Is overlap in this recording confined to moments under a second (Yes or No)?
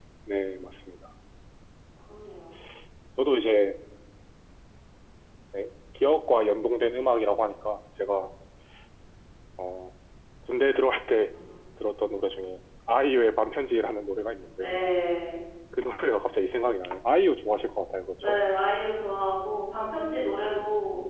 Yes